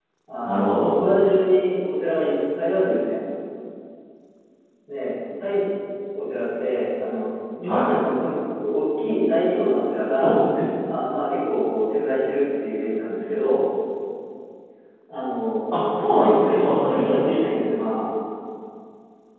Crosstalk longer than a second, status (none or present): present